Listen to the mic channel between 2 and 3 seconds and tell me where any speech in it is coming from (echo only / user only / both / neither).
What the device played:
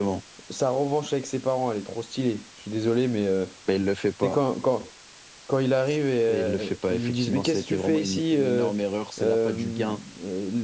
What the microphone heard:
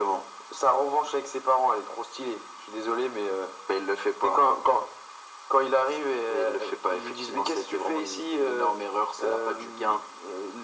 echo only